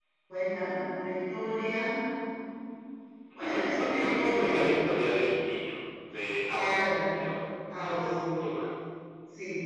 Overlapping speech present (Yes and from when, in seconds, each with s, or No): Yes, from 3.4 s